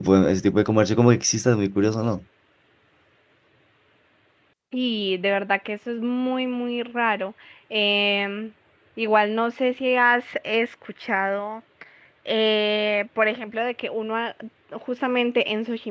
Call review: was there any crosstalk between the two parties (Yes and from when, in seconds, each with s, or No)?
No